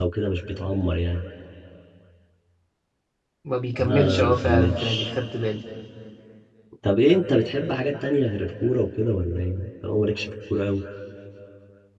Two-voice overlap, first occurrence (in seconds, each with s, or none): 3.8 s